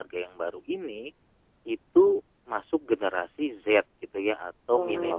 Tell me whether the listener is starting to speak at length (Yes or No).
Yes